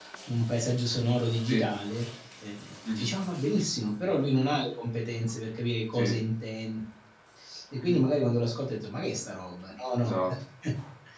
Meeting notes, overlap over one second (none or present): none